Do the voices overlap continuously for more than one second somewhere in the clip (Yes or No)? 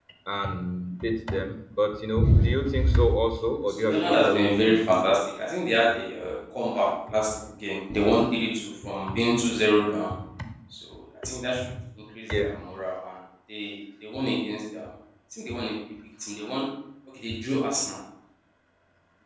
Yes